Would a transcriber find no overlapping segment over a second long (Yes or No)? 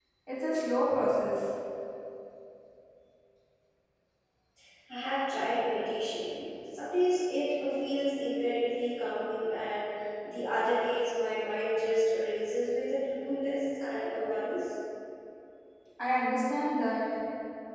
Yes